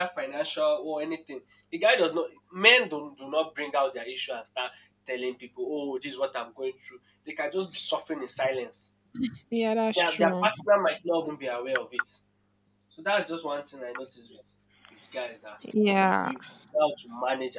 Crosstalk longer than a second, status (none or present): none